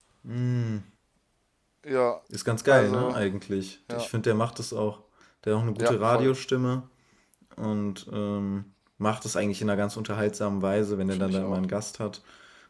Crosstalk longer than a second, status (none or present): none